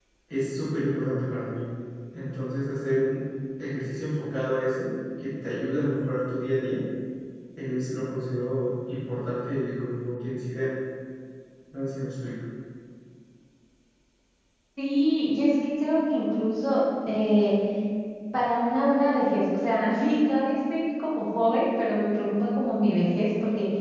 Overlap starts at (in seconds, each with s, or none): none